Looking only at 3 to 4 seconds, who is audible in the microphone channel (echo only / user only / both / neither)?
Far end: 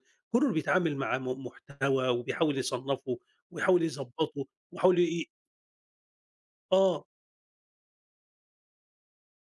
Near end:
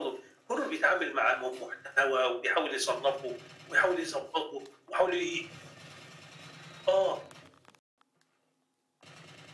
echo only